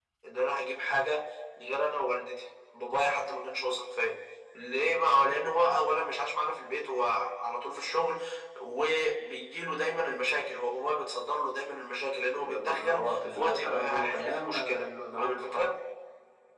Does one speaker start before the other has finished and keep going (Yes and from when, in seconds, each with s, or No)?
Yes, from 12.4 s